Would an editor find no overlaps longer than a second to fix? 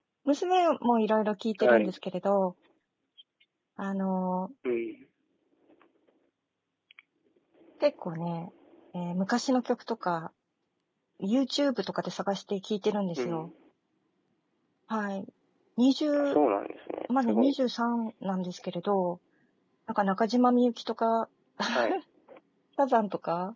Yes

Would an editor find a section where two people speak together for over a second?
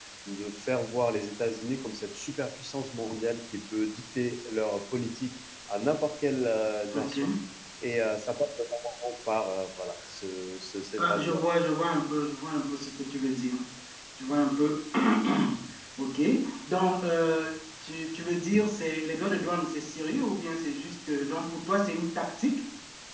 No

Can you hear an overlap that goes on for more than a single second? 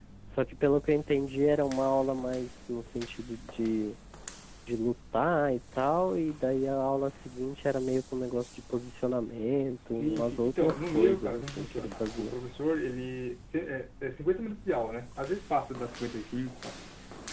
Yes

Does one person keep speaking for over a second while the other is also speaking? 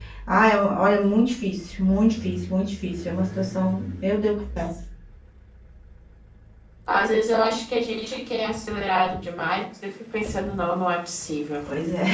No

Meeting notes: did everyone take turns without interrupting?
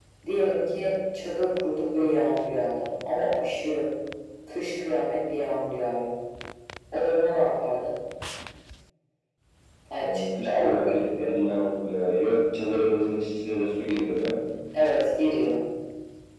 No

